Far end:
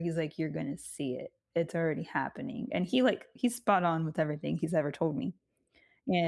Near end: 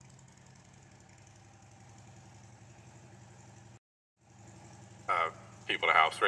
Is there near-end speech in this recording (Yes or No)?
Yes